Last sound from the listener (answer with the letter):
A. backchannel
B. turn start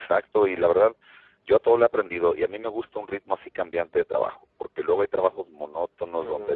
B